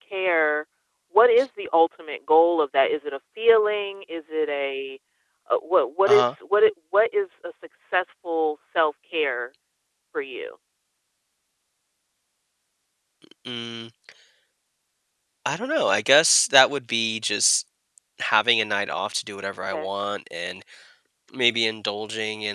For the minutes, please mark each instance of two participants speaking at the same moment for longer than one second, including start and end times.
none

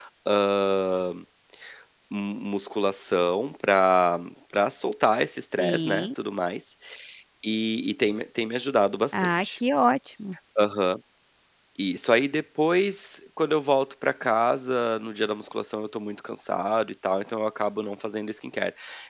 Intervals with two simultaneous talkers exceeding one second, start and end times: none

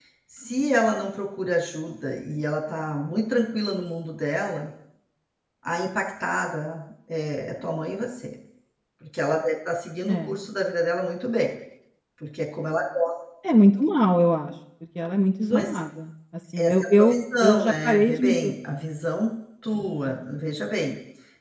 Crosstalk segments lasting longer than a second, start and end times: 16.6-18.5

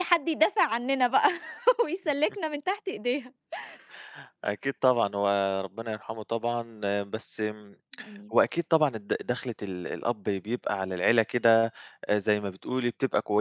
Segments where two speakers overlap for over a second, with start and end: none

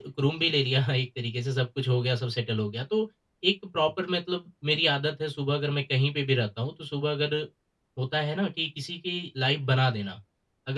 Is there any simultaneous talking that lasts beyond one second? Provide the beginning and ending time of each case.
none

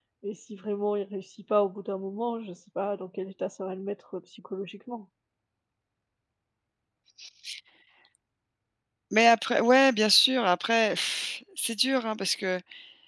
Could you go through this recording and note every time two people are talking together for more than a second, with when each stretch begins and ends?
none

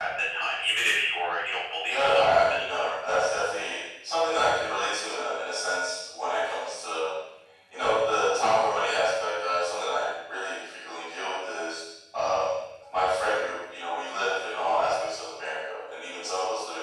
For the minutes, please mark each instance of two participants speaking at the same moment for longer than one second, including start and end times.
1.8-3.2

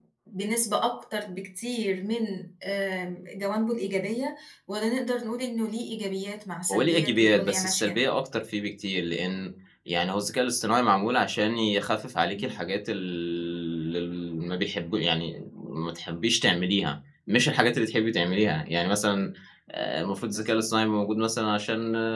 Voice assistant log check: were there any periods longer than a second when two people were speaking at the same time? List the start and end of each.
6.7-8.0

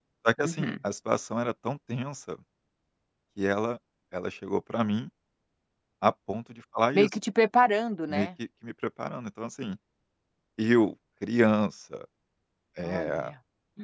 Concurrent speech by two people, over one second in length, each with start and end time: none

